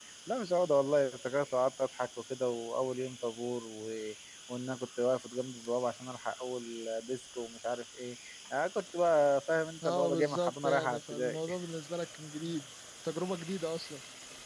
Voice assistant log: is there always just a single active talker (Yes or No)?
No